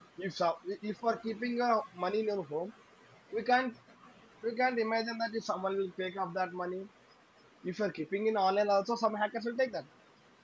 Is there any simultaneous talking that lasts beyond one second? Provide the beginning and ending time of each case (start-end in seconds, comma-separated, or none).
none